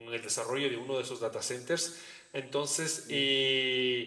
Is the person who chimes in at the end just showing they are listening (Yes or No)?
Yes